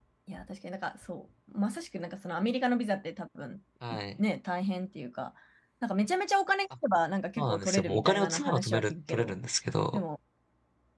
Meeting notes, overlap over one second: present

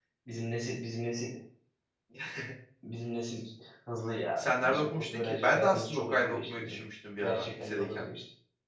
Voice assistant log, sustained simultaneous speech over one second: present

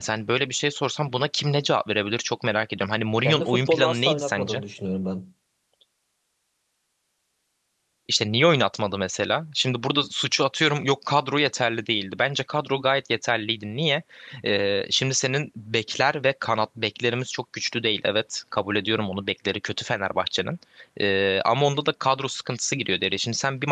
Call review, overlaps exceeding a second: present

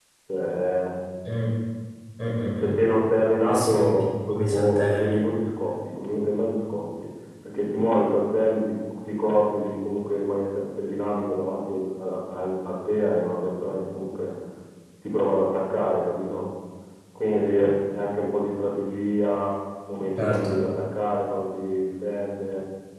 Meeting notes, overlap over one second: present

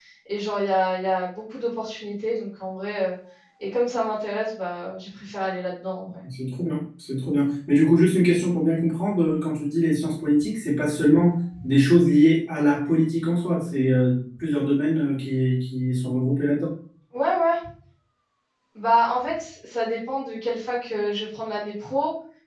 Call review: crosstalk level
none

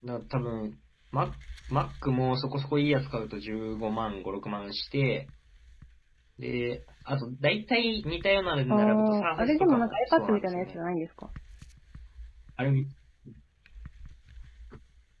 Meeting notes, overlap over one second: present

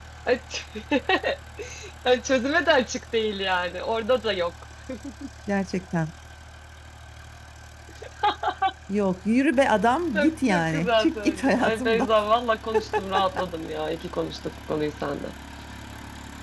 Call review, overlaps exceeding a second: present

